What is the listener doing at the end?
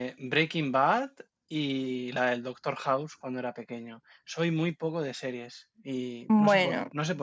listening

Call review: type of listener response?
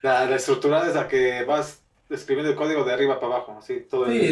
taking over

